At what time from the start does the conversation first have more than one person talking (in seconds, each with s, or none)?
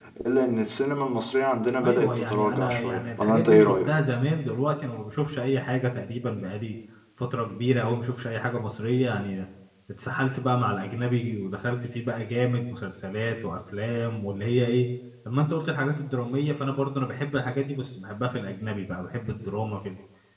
1.8 s